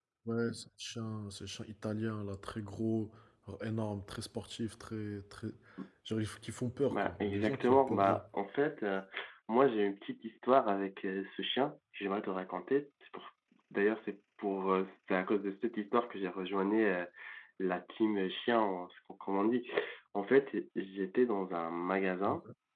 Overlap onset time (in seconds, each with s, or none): 6.9 s